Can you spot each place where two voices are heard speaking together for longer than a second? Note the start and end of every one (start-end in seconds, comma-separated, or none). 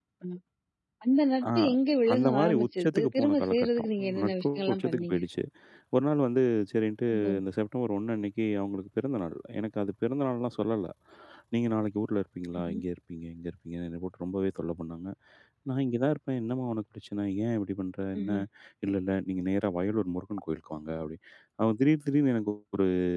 2.1-5.2